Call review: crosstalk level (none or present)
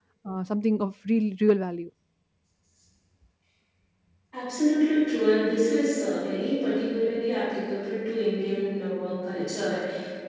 none